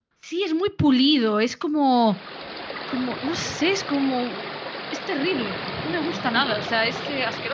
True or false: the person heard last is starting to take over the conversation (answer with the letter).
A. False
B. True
A